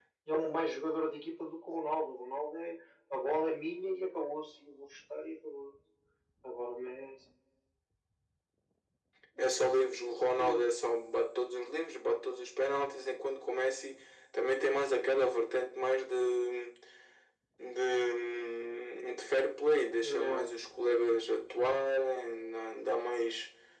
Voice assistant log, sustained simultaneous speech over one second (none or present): none